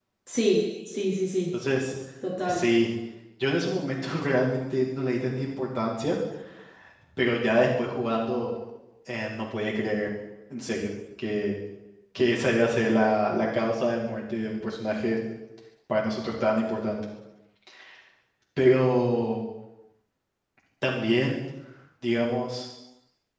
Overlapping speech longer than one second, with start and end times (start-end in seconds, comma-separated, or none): none